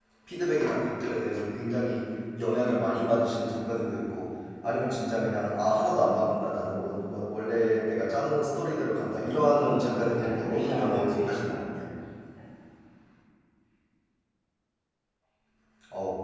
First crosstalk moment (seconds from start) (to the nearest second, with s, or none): 10 s